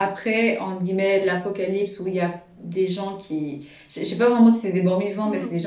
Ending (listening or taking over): listening